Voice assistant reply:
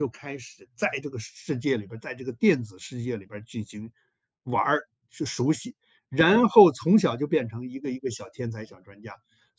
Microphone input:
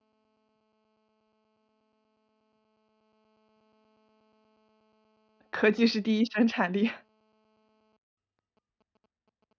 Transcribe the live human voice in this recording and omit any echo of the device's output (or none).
科技是第一生产力。